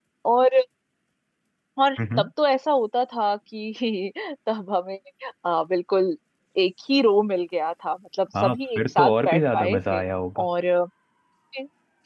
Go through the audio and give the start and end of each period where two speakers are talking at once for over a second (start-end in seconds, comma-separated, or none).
8.4-10.0